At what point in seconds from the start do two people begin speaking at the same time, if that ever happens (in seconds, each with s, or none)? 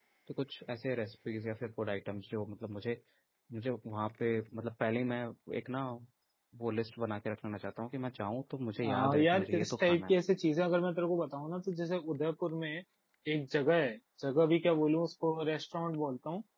8.8 s